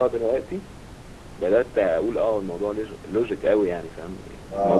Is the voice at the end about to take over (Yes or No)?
Yes